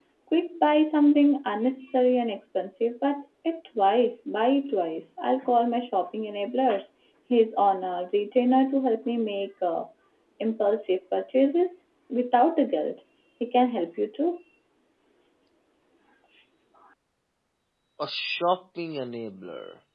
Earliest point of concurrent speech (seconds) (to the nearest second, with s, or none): none